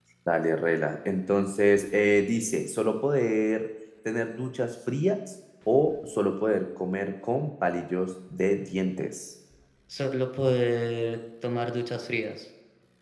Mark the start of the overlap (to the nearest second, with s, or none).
none